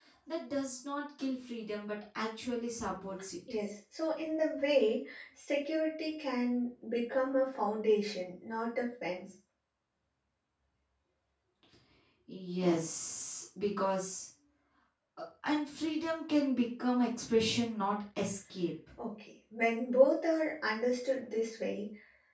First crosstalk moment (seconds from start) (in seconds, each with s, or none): none